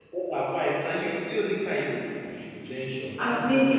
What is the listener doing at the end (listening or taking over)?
taking over